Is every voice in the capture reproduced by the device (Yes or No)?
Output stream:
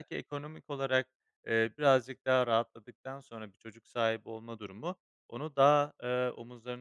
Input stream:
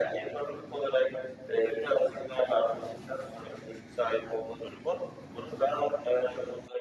Yes